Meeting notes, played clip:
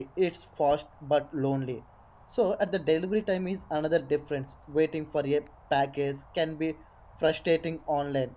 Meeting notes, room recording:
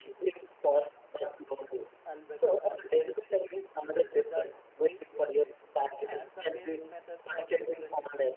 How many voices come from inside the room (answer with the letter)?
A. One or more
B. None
A